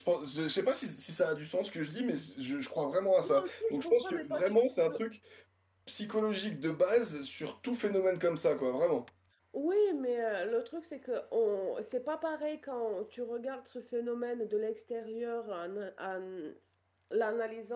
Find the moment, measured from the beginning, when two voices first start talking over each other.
3 s

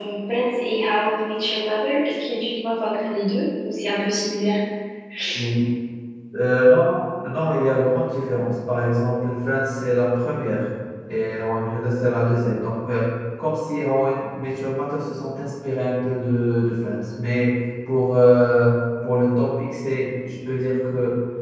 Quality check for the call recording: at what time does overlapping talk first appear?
none

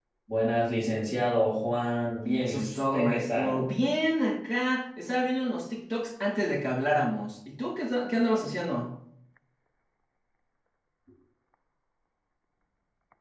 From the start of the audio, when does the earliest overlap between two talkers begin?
2 s

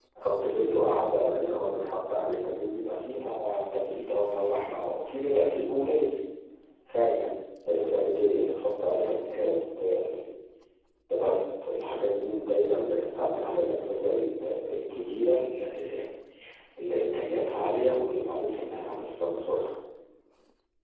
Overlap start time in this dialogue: none

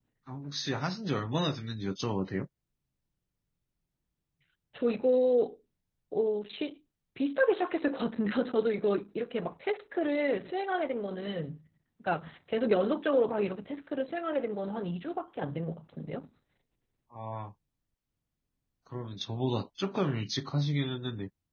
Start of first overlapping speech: none

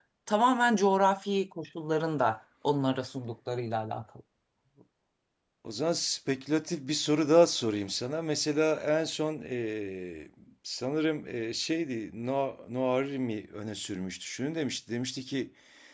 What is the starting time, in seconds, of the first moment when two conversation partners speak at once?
none

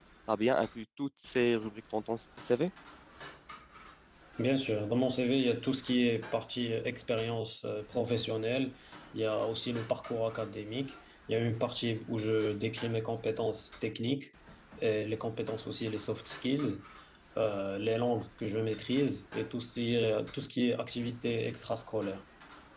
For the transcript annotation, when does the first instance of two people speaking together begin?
none

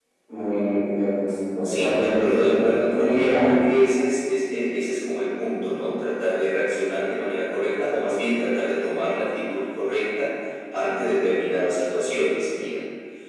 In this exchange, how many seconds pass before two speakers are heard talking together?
2 s

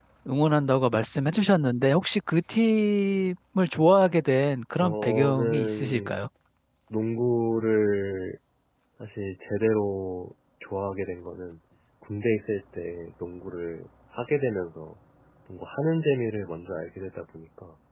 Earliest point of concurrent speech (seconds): 5 s

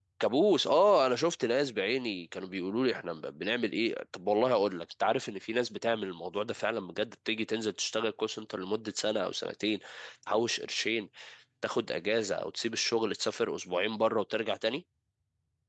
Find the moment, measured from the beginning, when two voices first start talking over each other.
none

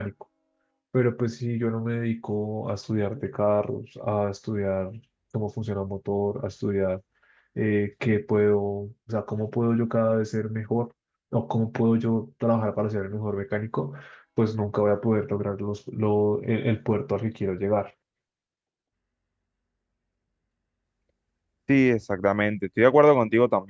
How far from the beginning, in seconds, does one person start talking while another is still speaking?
none

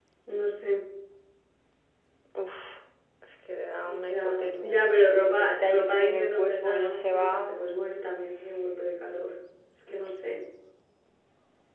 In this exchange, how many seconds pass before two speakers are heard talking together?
4 s

